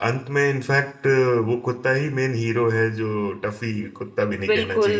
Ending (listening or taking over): taking over